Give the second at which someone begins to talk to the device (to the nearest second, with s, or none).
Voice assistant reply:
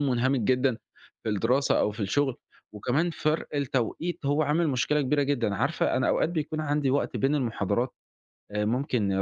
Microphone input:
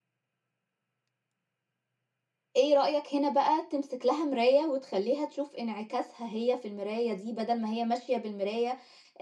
3 s